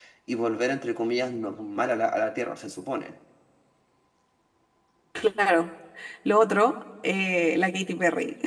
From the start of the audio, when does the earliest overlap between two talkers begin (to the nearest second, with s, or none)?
none